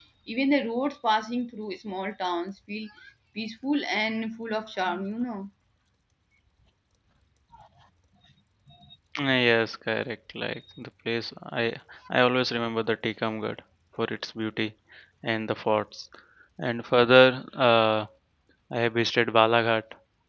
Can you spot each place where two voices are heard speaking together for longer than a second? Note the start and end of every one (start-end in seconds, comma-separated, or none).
none